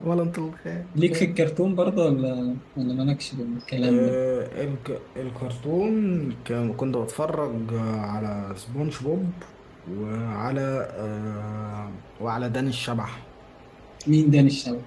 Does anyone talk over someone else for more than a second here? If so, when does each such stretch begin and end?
none

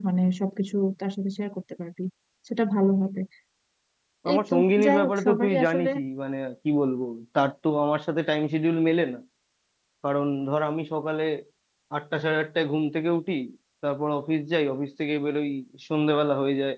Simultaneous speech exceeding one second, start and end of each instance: 4.3-5.9

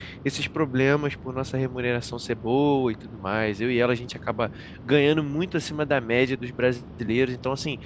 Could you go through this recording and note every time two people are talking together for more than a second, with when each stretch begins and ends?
none

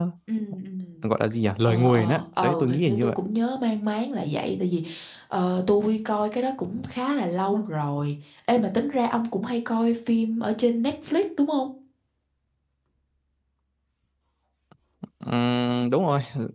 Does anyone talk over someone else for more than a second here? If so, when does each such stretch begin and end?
1.7-3.2

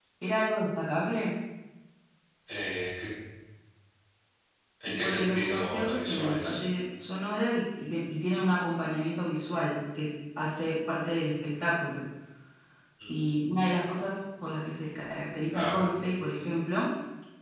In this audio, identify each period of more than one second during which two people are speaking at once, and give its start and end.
4.9-6.6

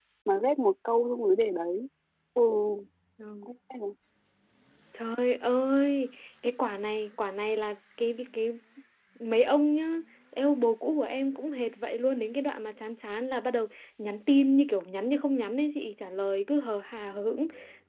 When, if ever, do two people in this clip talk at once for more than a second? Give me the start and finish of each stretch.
none

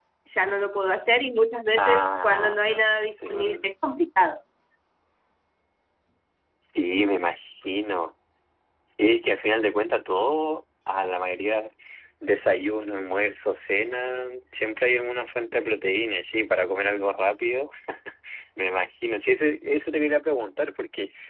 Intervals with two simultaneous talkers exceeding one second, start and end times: 1.8-3.7

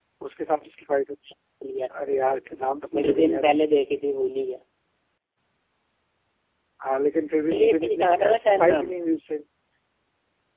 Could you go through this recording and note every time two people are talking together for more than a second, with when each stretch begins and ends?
7.5-8.9

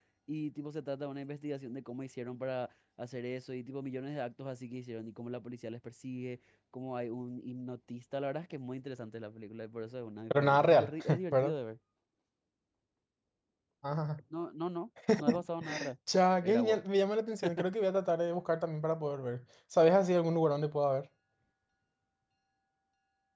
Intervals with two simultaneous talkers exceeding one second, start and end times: 10.3-11.6

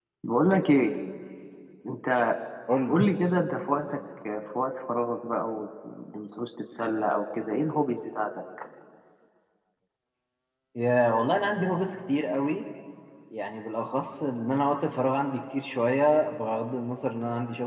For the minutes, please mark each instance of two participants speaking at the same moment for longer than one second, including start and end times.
none

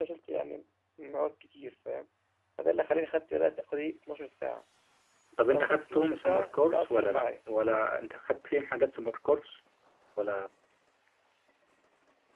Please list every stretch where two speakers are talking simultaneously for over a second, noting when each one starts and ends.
5.5-7.2

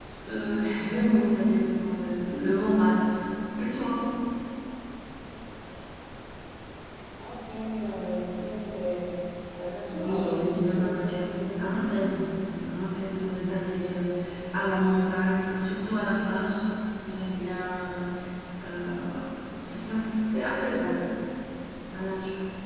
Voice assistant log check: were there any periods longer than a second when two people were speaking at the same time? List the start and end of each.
9.9-11.6

